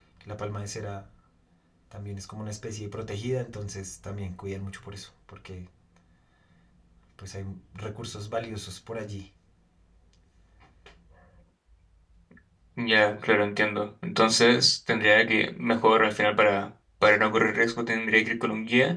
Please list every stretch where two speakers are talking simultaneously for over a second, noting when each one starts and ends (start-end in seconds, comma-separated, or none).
none